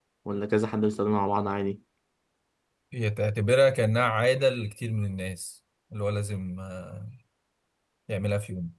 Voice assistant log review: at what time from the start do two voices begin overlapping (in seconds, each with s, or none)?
none